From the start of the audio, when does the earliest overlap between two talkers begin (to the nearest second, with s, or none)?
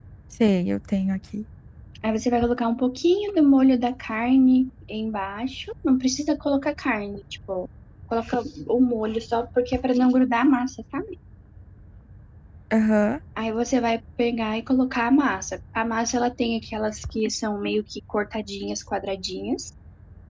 none